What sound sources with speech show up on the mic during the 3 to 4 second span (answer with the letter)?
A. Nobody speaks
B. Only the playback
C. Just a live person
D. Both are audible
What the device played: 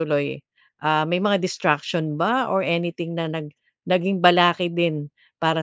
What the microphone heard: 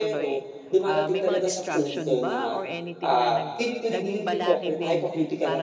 D